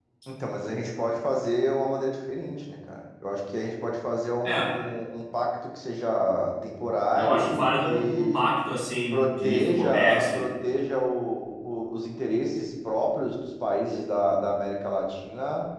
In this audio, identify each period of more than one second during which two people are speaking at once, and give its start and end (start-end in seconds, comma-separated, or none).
7.2-8.4, 9.1-10.5